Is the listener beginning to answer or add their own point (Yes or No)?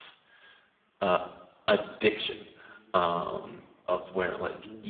No